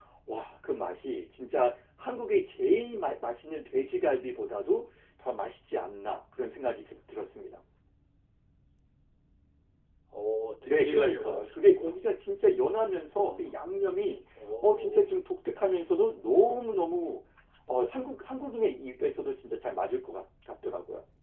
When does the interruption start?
10.6 s

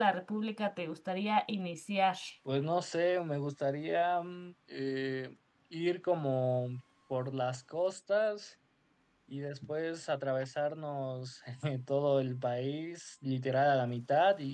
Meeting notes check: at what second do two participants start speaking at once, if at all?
none

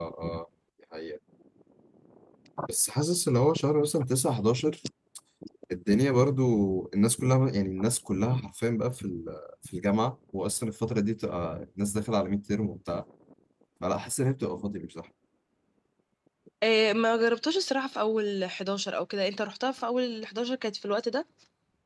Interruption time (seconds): none

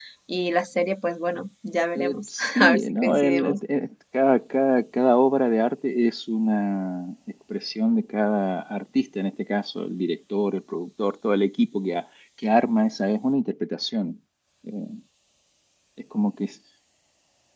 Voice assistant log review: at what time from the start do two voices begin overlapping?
2.0 s

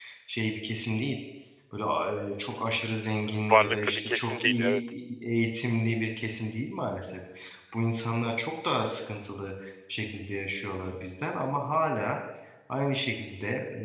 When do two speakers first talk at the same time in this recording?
3.5 s

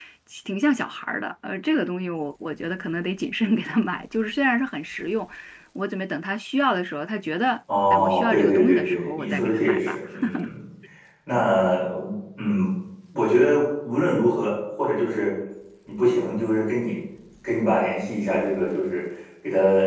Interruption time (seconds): 7.7 s

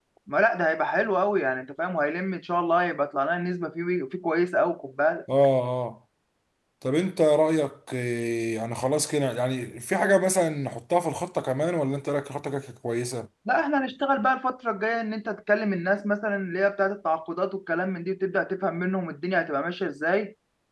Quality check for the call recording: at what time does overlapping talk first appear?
none

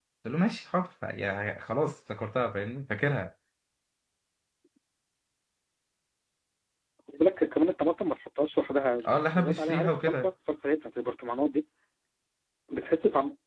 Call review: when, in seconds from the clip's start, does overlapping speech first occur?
9.0 s

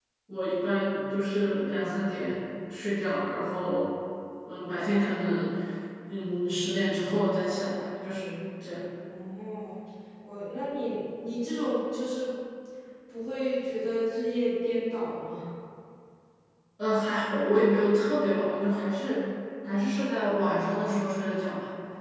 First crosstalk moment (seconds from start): none

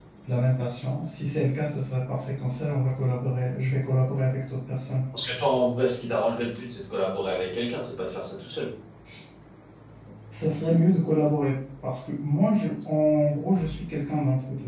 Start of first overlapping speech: none

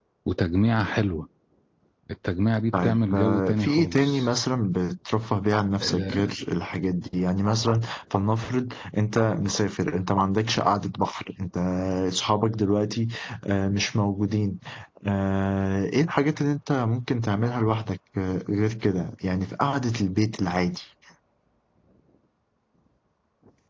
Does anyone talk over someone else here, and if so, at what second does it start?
2.8 s

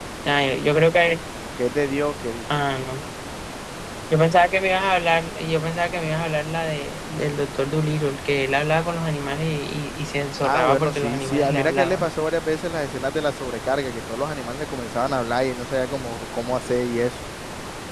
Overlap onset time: 10.4 s

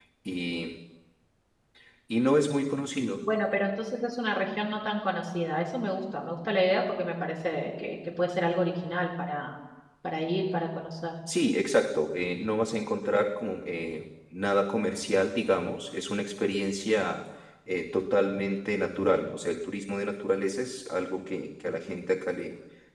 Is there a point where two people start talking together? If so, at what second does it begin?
none

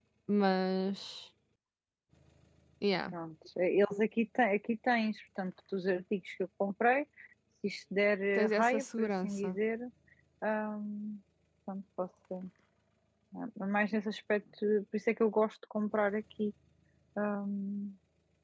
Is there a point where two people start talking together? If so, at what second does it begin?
8.4 s

